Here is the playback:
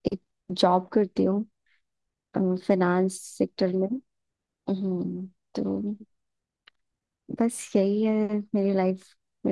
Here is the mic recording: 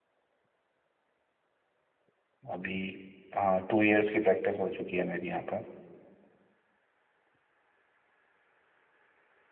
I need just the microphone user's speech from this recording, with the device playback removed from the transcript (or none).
अभी हाँ टू इयर्स की प्रैक्टिस हो चुकी है मेरी यहाँ पर